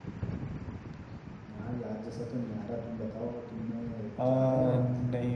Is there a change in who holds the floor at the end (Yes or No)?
Yes